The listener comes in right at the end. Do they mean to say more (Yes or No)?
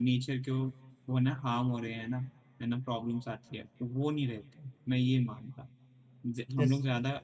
No